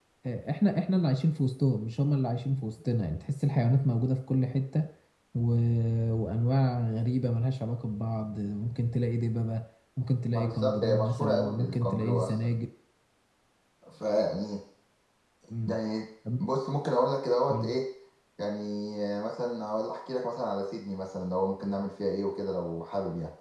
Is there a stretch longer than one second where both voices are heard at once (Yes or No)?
Yes